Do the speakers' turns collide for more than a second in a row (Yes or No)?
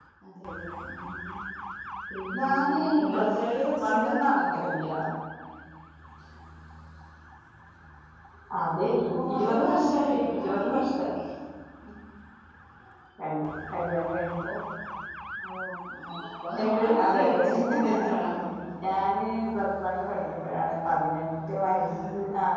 Yes